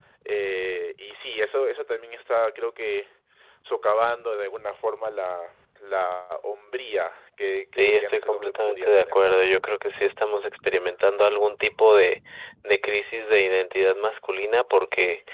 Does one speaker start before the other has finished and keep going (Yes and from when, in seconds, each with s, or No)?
Yes, from 7.8 s